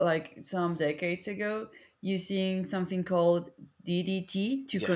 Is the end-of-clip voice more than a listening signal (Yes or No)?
Yes